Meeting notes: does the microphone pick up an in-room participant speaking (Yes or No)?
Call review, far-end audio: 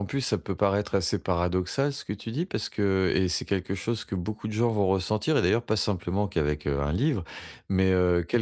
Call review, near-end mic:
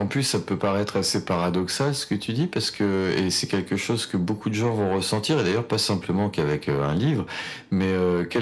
No